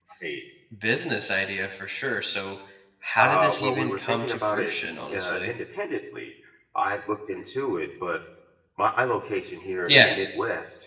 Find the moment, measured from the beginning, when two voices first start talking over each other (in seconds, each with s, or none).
3.2 s